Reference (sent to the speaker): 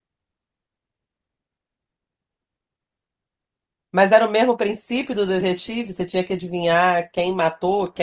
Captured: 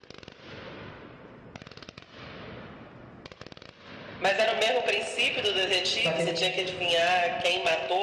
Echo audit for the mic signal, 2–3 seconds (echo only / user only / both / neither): neither